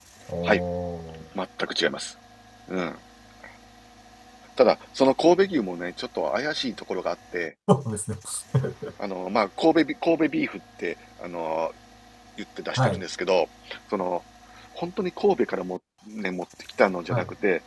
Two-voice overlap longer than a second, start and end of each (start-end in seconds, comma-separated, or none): none